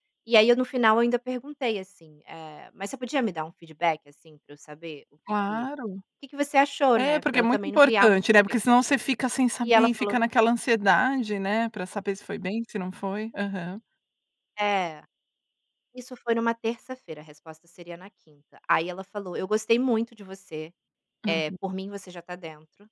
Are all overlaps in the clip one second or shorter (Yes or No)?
No